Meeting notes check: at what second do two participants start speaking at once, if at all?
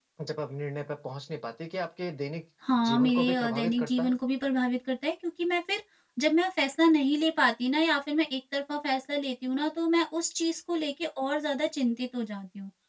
2.9 s

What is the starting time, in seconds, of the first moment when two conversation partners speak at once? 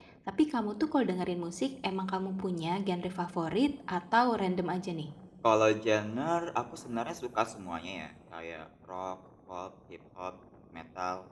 none

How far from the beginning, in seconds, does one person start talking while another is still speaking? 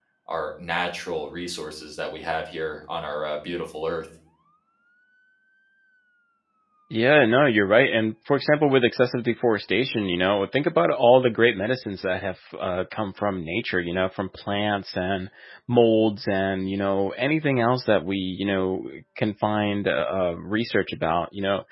none

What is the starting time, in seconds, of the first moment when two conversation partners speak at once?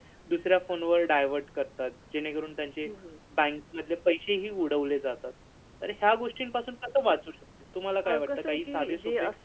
8.0 s

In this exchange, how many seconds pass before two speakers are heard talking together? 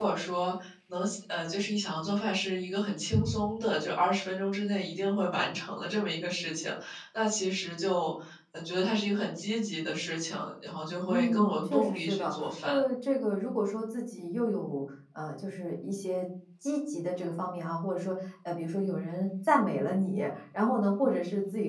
11.1 s

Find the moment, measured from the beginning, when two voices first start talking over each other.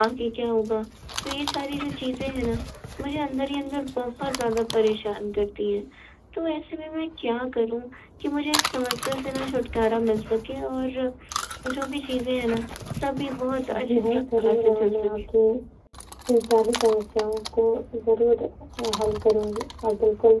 13.8 s

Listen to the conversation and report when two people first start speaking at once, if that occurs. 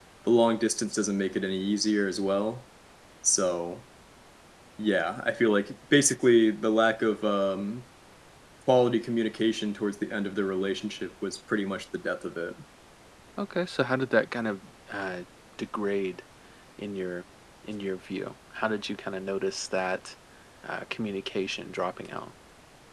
none

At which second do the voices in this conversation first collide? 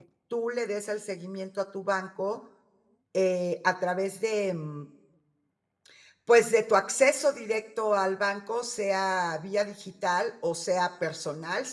none

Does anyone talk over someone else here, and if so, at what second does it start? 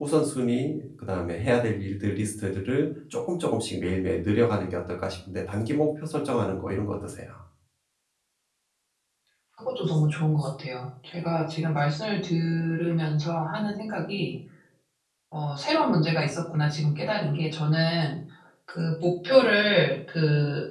none

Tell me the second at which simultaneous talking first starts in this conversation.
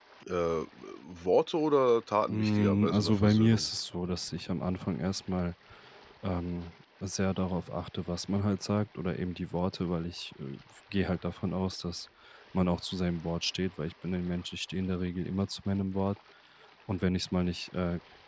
2.3 s

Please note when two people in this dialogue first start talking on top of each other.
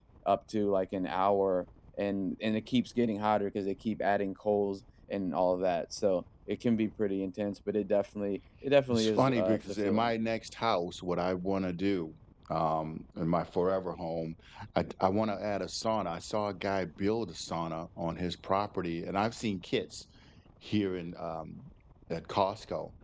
8.9 s

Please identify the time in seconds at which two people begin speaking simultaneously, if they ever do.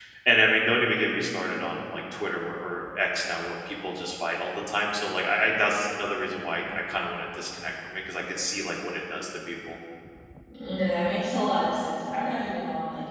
none

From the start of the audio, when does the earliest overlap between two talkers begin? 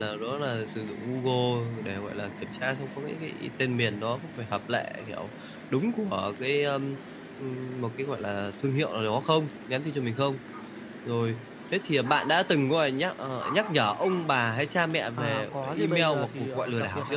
15.2 s

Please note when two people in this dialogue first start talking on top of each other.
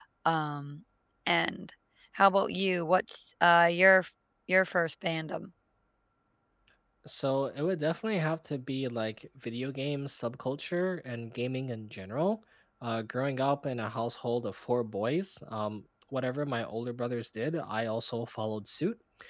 none

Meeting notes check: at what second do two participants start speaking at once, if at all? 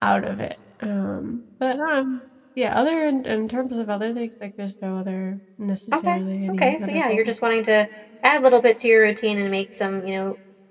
5.9 s

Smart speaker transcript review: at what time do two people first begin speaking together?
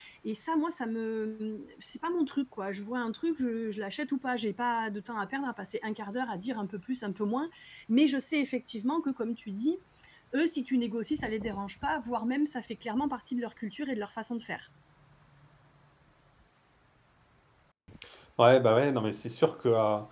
none

